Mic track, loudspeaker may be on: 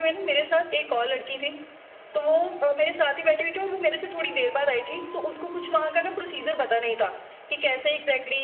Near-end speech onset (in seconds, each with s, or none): none